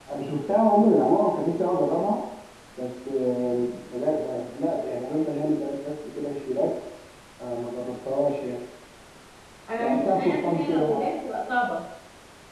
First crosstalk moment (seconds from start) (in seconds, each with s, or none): 9.8 s